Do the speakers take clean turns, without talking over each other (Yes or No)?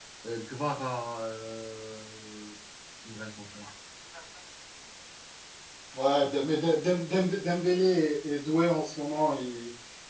Yes